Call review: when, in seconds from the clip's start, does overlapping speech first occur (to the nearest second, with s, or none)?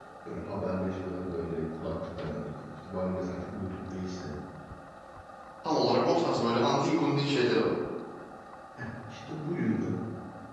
none